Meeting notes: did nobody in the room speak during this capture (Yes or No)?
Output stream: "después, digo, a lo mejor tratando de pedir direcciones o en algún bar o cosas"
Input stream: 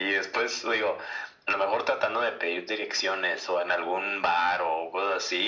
Yes